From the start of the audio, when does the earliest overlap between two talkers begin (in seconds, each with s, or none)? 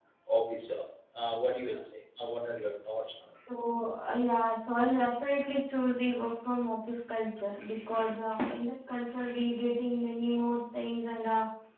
none